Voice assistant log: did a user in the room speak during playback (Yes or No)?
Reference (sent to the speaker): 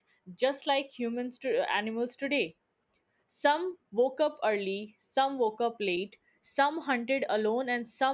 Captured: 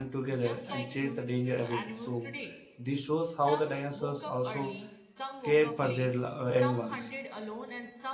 Yes